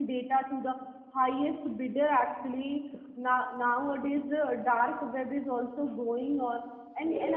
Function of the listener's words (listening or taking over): listening